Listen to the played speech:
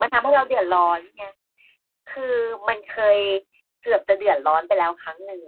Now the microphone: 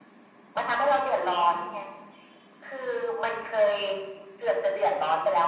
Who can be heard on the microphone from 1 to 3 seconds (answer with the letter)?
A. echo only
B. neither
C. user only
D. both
A